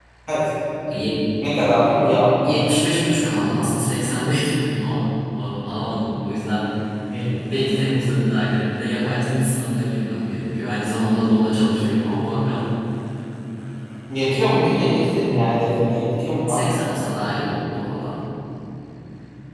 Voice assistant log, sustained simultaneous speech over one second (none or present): none